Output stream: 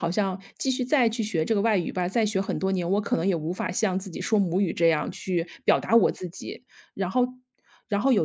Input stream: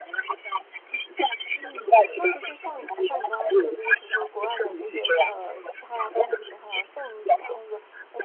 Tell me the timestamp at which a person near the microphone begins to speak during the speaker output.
1.5 s

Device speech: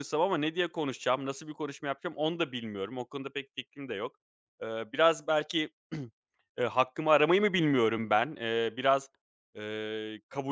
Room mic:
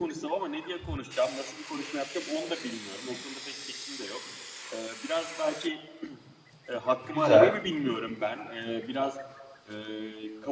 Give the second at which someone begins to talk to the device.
7.1 s

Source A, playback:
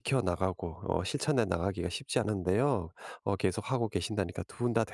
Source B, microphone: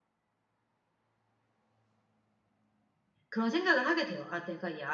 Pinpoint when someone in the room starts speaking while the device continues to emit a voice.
3.3 s

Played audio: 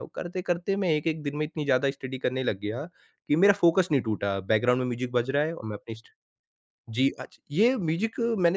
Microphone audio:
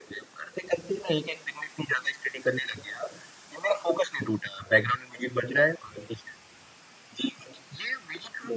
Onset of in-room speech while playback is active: none

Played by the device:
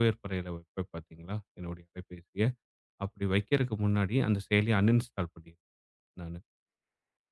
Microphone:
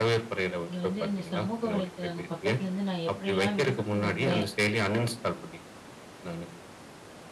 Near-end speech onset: 0.7 s

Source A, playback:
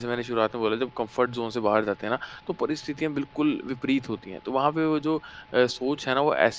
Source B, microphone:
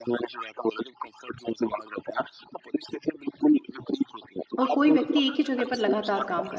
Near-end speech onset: 4.6 s

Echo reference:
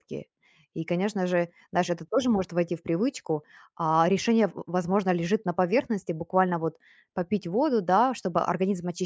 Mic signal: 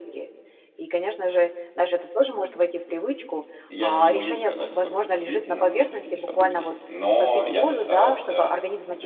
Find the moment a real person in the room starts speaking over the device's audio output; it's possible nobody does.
3.7 s

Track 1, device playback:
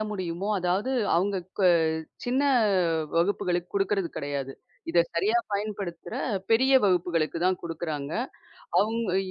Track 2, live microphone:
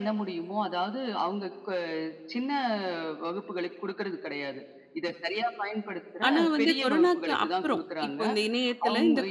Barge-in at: 6.3 s

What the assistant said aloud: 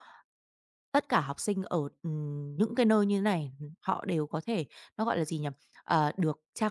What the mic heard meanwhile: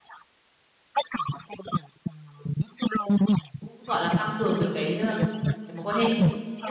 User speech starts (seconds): 3.6 s

